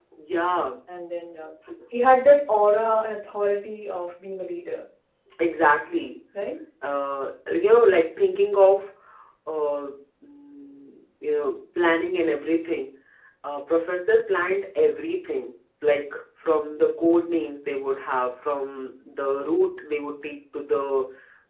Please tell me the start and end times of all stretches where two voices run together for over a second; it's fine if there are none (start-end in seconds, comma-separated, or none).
none